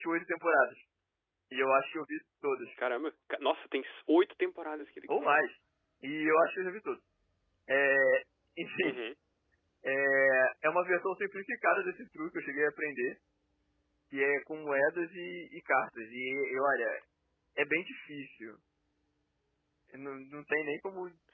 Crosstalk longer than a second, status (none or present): none